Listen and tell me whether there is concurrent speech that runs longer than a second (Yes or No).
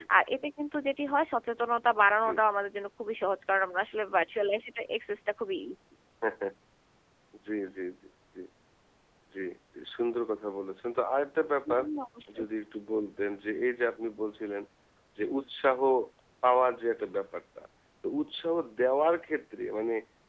No